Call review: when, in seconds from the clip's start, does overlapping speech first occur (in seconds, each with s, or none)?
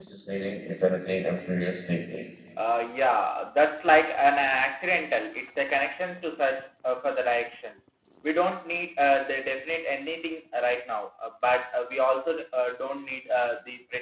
none